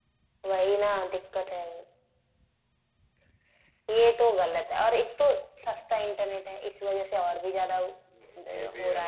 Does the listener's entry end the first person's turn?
Yes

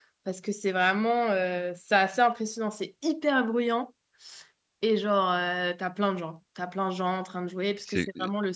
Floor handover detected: No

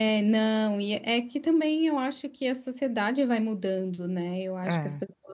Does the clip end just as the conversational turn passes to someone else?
No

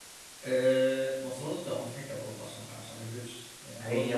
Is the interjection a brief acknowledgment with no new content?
No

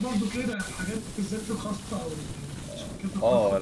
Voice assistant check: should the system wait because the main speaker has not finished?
No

